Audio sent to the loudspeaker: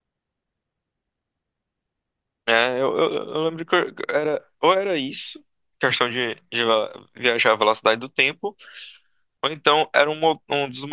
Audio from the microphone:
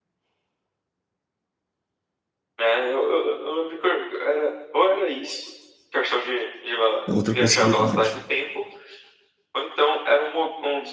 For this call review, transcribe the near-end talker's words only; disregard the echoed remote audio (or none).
É outra possibilidade,